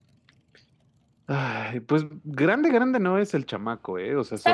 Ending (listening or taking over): listening